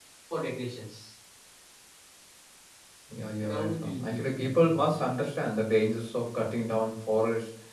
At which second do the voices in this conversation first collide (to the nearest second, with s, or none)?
3 s